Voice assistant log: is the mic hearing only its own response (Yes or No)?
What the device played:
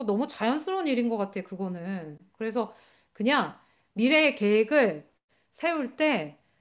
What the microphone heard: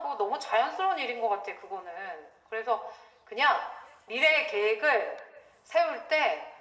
Yes